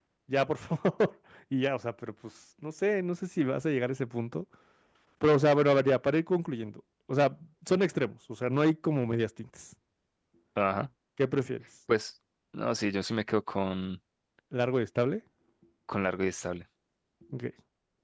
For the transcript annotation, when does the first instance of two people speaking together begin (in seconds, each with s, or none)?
none